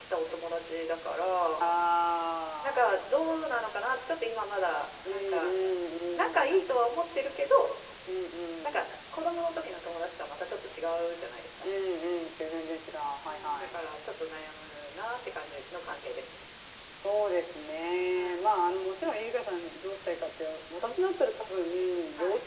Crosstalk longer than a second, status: none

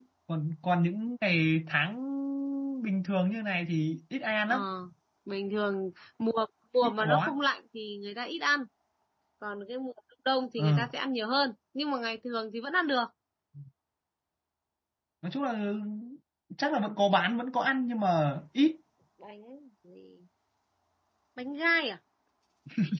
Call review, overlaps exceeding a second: none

